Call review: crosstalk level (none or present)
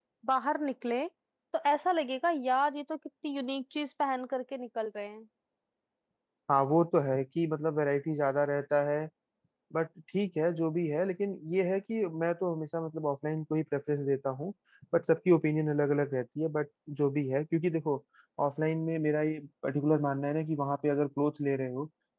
none